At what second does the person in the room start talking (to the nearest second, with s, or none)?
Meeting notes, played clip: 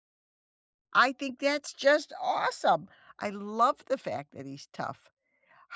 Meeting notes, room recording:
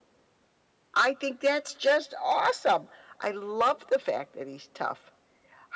none